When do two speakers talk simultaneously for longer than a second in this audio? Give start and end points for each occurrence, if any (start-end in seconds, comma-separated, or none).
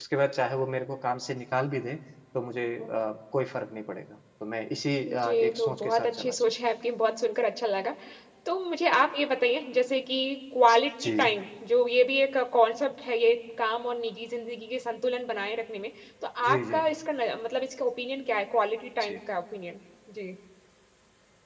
5.1-6.3